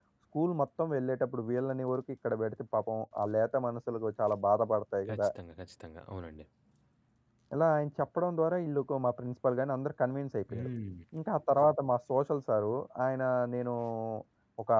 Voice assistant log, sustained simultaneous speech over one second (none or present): none